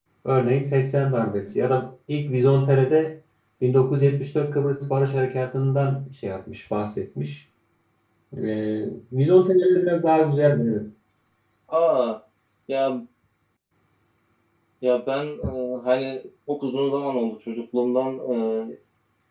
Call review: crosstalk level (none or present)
none